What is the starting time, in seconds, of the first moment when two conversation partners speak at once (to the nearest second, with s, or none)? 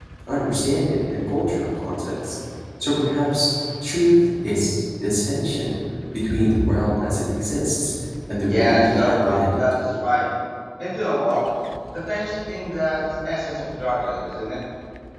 8 s